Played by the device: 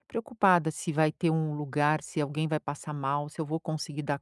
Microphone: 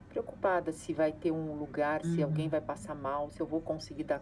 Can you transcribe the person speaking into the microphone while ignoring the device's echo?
Uhum.

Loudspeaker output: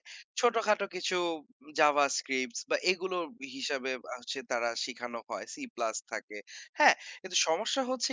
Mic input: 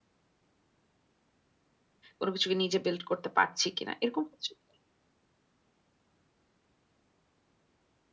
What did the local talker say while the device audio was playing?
কোন কিছু কি নিজে বিল্ট করতে পারছি কিনা। এরকম হচ্ছে কি?

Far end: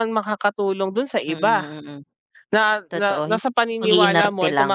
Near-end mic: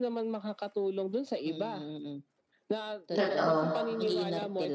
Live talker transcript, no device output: Totoo.

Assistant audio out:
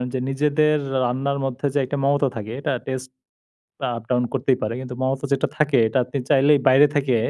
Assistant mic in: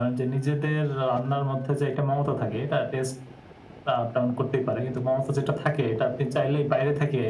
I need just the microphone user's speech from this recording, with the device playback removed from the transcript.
none

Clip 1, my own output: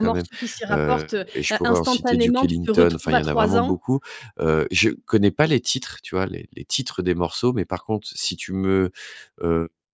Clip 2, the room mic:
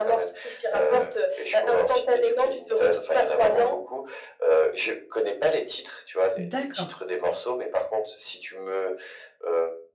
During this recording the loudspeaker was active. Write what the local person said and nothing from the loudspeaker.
D'accord.

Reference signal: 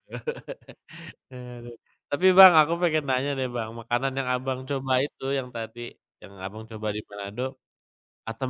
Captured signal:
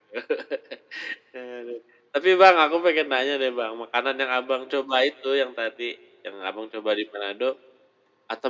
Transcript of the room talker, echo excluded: none

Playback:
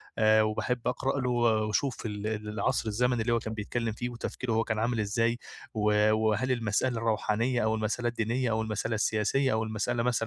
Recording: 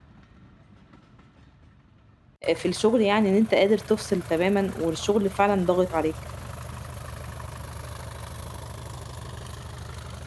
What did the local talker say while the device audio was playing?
آآ في الشغل يعني إن أنت قادر تفصِل تمامًا والشغل فعلًا ضاغط عليك؟

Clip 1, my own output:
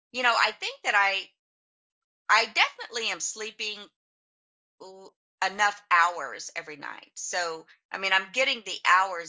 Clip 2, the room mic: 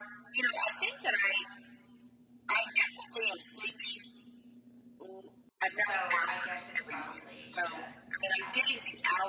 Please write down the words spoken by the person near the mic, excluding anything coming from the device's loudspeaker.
so I guess it's probably just, I don't know.

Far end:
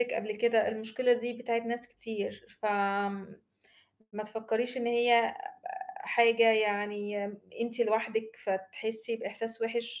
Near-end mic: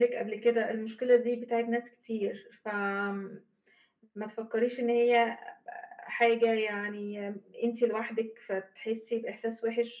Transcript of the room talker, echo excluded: none

